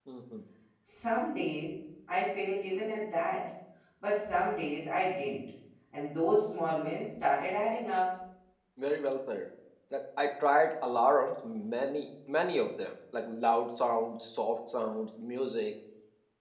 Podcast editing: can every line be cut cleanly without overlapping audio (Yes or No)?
Yes